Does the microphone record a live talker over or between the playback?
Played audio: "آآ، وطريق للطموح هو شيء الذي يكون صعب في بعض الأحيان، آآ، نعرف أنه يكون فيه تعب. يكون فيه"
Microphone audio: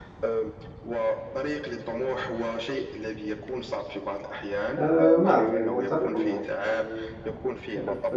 Yes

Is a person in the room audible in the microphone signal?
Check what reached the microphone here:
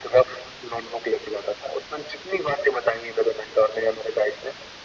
No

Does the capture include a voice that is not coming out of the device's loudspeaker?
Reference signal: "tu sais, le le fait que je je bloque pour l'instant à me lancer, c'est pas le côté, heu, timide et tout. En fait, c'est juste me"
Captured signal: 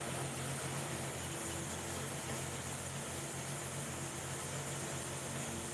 No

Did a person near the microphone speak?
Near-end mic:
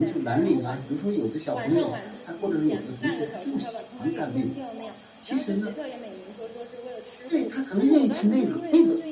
Yes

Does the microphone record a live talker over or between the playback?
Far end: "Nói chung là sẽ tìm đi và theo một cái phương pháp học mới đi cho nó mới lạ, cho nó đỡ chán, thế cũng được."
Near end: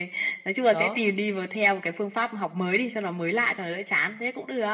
Yes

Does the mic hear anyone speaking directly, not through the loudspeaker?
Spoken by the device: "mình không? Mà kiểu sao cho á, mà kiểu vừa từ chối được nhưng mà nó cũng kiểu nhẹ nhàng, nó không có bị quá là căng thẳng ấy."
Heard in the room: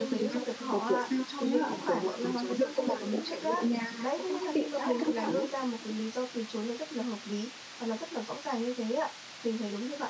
Yes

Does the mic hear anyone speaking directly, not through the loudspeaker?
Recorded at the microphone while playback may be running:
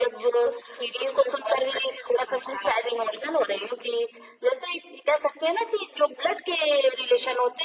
No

